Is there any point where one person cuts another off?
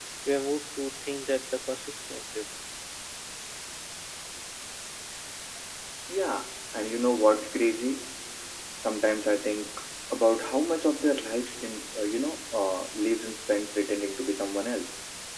No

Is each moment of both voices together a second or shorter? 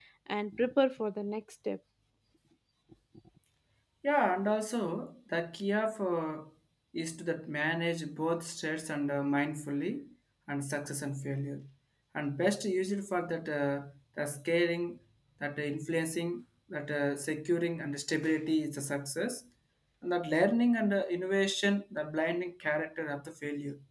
Yes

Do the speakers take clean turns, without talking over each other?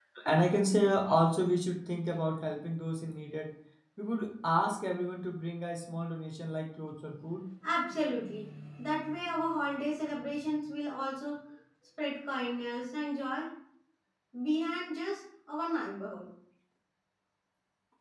Yes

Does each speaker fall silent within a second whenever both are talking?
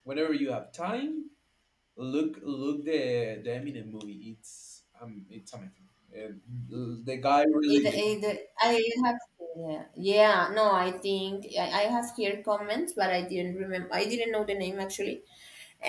Yes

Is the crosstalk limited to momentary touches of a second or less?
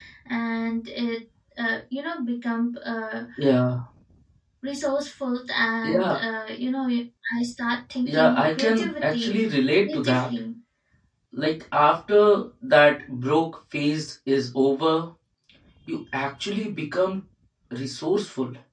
No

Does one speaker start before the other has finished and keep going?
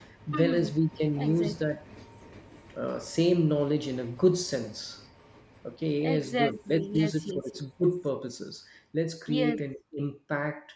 Yes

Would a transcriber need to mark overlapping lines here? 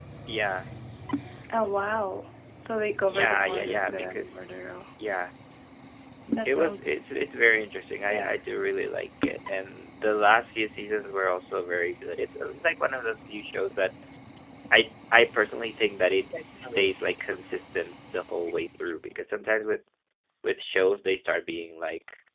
Yes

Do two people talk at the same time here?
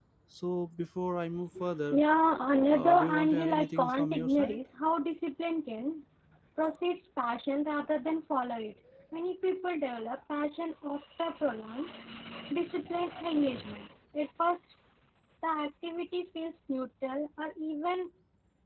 Yes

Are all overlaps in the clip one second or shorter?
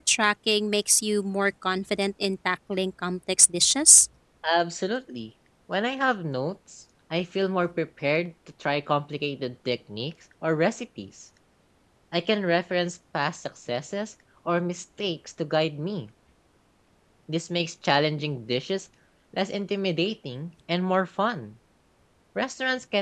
Yes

